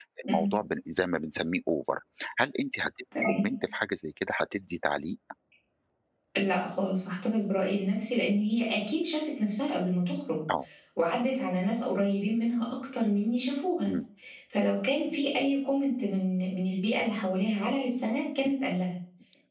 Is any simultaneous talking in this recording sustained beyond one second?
No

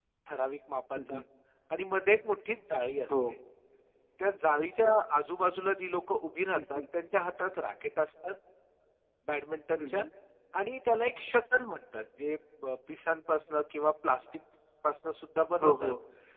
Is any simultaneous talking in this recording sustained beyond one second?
No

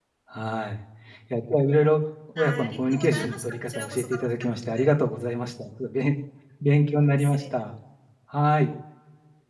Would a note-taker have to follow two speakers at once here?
Yes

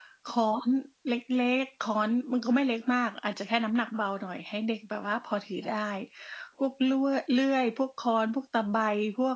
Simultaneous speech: No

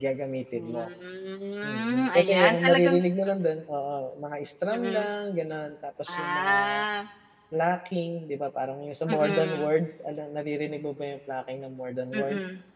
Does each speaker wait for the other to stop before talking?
No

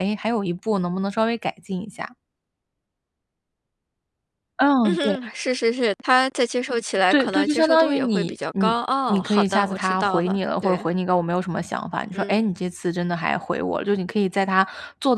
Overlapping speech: Yes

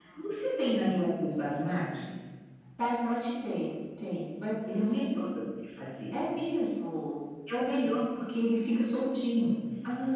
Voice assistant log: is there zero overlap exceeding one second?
Yes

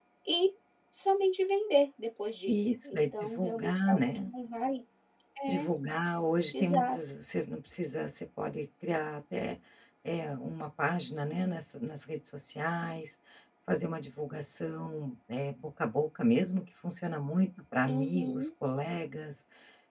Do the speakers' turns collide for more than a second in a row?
Yes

